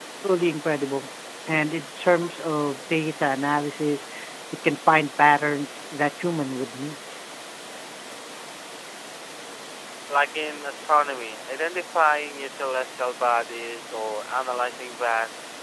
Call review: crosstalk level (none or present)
none